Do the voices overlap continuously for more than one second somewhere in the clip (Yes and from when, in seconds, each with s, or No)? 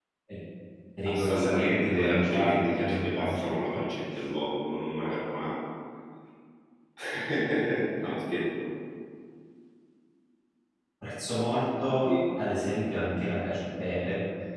Yes, from 1.0 s